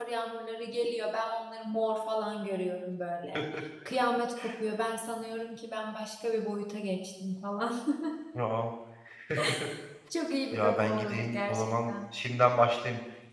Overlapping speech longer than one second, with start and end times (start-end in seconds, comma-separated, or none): 10.5-11.9